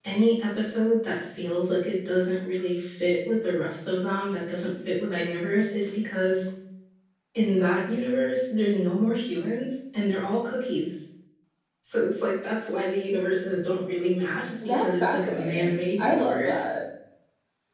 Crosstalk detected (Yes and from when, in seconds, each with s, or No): Yes, from 14.6 s